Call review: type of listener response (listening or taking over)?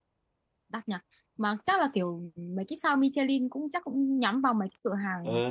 taking over